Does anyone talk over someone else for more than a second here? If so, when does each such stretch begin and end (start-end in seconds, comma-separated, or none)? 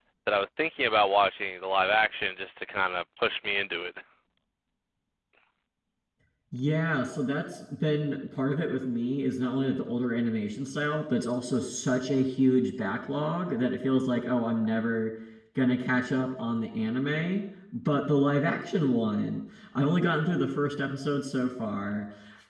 none